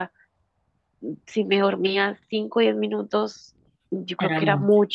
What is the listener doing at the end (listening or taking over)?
listening